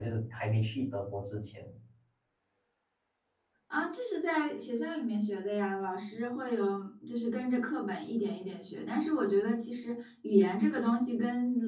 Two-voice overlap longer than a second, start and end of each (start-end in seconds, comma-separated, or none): none